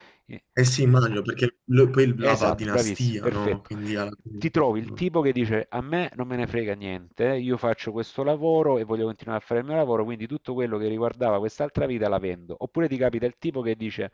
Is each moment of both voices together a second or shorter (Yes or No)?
No